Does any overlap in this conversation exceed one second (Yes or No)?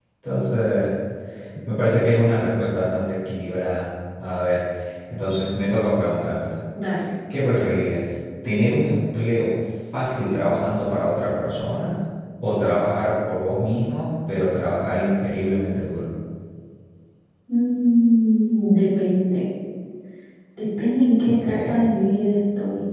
No